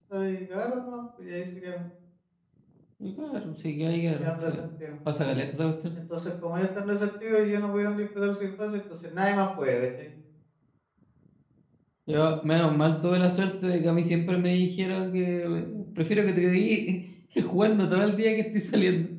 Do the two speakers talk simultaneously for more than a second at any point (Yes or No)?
No